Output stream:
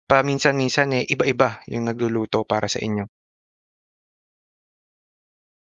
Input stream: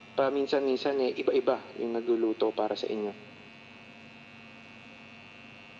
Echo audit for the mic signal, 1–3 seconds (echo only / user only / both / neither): echo only